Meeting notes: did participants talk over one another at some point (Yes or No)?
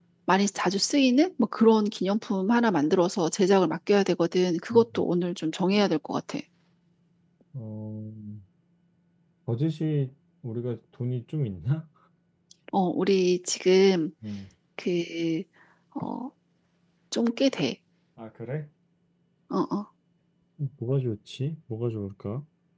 No